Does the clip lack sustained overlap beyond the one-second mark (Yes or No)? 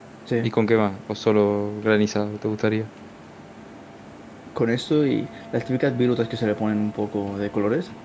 Yes